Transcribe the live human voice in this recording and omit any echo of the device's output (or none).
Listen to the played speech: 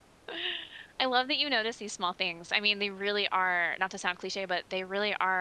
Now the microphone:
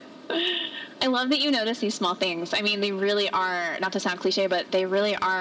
none